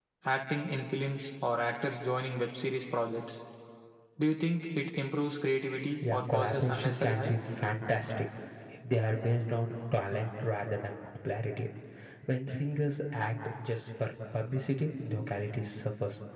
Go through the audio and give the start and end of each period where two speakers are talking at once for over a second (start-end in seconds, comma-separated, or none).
6.1-7.3